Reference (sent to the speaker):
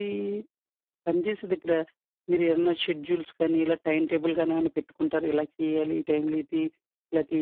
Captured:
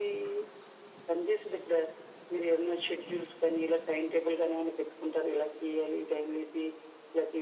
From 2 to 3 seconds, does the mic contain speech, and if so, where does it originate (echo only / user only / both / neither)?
echo only